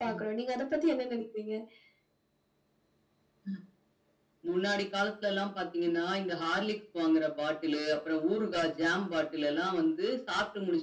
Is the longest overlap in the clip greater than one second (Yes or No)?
No